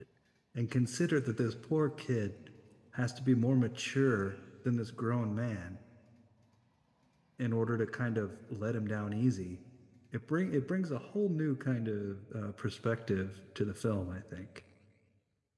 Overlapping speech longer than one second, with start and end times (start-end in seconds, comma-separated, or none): none